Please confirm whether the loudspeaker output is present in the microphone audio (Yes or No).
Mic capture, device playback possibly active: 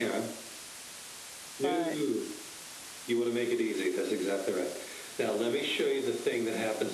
Yes